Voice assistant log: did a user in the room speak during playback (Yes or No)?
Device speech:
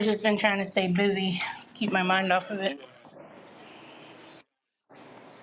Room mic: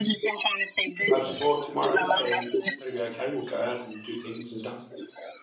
Yes